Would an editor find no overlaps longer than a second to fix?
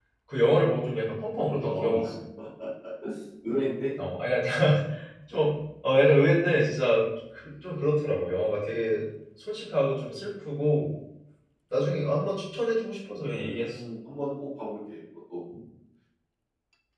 Yes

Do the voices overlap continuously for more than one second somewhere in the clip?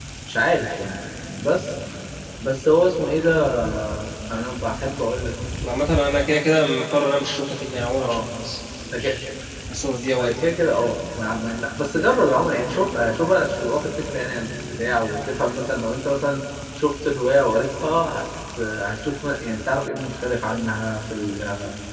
No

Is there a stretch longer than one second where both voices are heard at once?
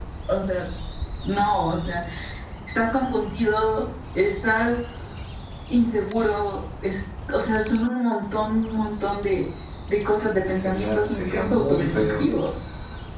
Yes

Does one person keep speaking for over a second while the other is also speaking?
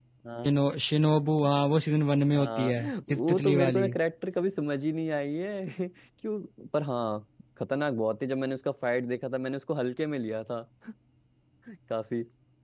Yes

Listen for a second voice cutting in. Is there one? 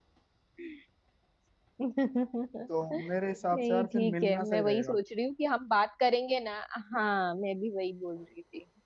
Yes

